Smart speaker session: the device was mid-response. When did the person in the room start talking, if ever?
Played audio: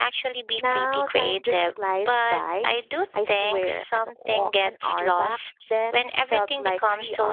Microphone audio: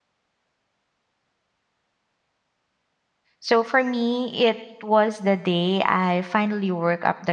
3.4 s

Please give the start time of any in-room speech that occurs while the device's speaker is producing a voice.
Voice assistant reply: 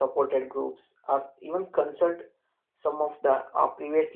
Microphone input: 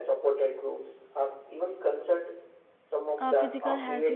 3.2 s

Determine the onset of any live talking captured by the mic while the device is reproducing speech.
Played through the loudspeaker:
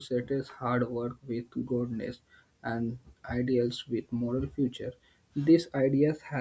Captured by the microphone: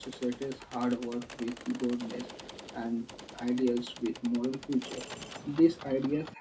none

